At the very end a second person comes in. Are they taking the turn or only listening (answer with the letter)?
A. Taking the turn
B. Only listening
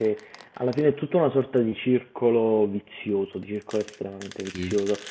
B